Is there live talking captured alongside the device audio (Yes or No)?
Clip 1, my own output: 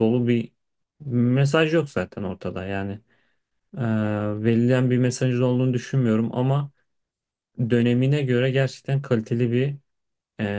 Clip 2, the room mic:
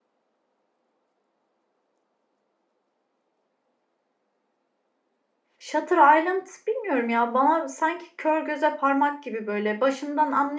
Yes